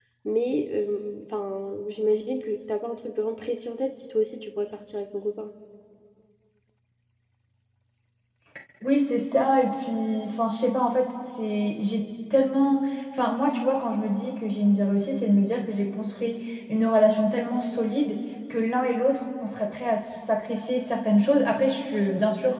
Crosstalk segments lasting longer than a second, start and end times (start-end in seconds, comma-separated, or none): none